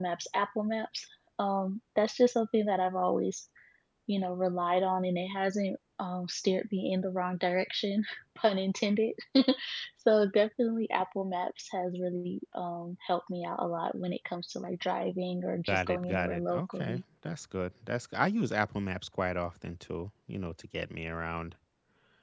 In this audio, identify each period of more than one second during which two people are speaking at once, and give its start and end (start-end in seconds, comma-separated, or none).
15.7-17.0